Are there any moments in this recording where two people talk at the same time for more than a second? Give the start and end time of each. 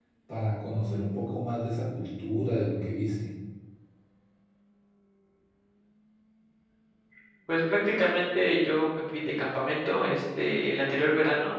none

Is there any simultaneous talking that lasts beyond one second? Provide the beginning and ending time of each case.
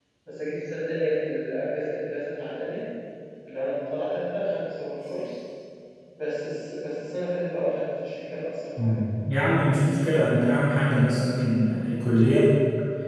none

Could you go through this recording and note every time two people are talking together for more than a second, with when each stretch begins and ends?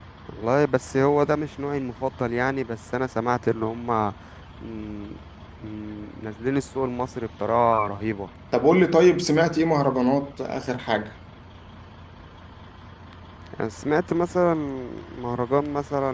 none

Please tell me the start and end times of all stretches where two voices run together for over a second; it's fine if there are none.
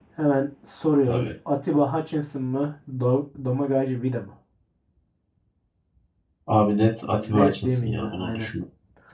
7.1-8.5

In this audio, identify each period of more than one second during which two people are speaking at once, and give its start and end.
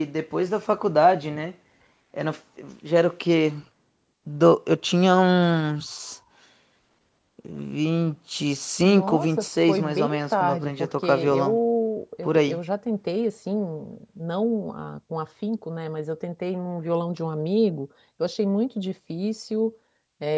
8.8-11.6

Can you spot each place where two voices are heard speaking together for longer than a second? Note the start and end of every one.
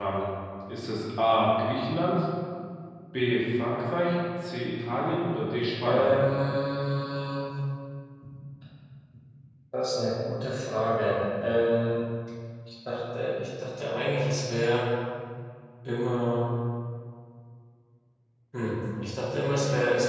none

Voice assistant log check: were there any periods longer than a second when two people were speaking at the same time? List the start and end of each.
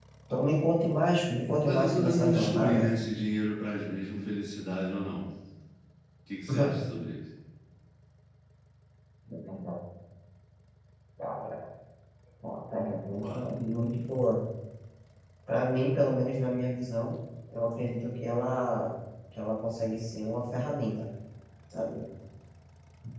1.5-2.9

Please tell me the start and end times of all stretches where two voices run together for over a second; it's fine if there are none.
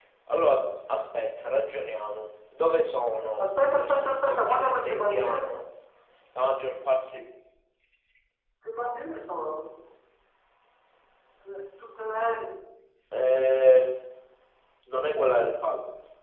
3.4-5.5

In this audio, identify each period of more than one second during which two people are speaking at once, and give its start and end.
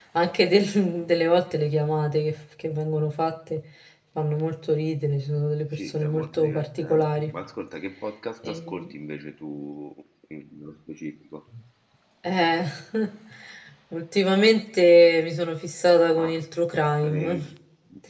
5.7-7.0

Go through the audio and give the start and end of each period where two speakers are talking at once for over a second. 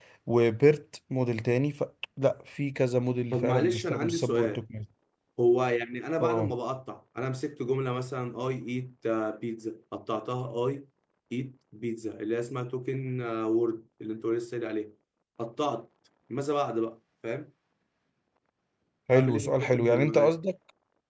3.3-4.6, 19.1-20.4

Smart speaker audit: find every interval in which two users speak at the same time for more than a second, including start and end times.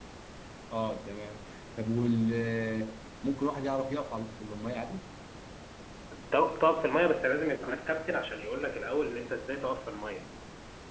none

